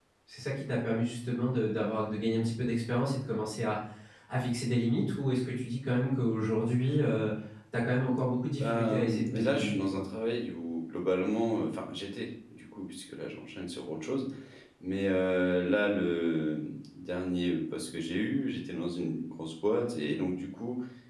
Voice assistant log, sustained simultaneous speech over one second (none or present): present